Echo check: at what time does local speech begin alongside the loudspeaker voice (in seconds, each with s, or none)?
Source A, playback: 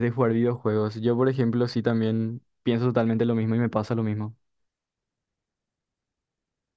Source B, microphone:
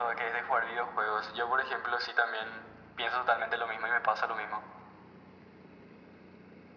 none